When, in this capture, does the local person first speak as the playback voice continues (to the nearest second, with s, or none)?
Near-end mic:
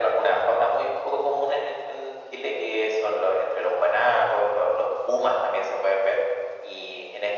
none